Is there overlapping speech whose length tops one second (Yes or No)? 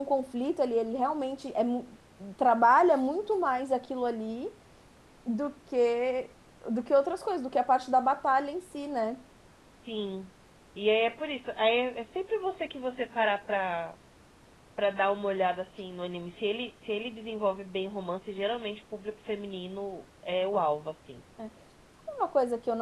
No